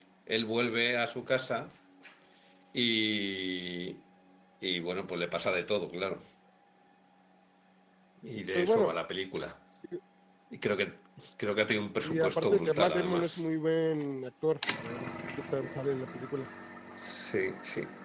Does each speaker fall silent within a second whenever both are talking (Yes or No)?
No